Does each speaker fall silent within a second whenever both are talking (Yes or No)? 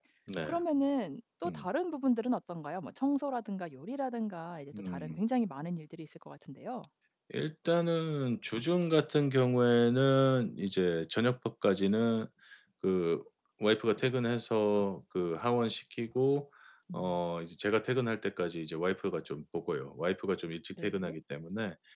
Yes